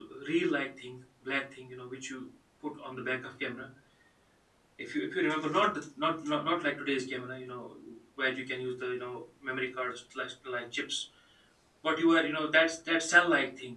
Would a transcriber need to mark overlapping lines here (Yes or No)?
No